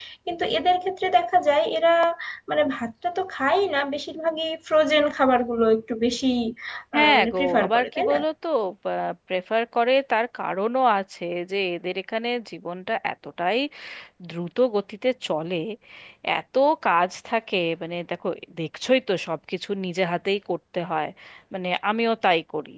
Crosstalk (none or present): present